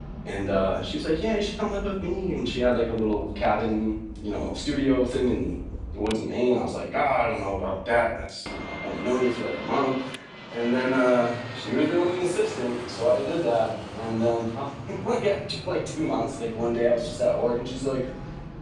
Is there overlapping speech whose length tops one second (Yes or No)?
No